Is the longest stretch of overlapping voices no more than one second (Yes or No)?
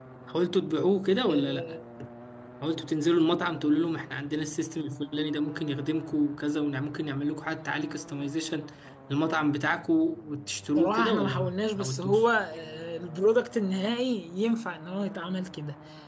No